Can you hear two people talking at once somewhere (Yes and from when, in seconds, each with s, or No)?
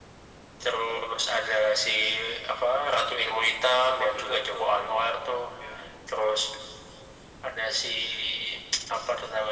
Yes, from 3.7 s